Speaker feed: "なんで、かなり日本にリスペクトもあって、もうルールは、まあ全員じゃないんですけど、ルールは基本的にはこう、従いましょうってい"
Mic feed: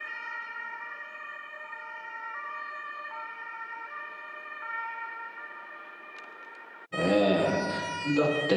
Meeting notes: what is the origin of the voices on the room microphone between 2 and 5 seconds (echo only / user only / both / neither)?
neither